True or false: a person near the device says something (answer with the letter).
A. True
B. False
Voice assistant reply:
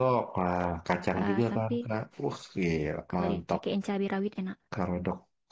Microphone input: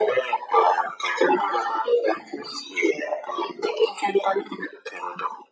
B